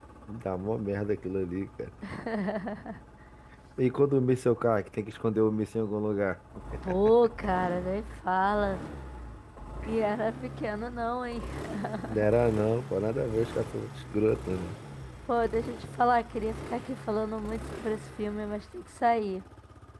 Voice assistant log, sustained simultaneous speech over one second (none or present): none